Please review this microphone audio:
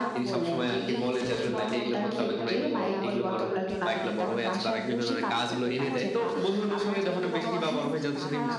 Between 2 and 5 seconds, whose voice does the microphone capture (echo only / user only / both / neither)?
both